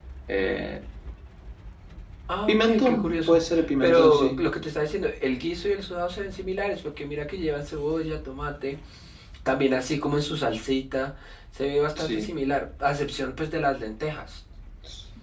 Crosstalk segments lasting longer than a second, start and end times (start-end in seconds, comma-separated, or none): 2.5-4.4